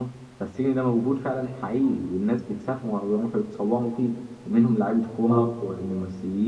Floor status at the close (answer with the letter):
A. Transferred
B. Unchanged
B